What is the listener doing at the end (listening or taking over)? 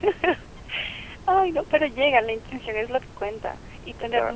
listening